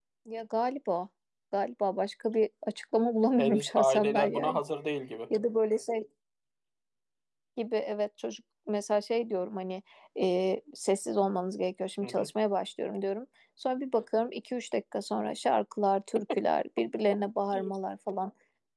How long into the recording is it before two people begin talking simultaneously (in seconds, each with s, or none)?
3.4 s